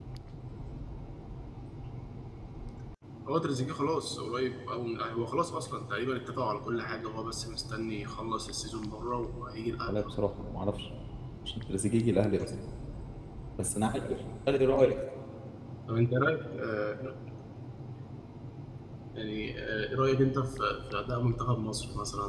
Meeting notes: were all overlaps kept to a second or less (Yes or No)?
Yes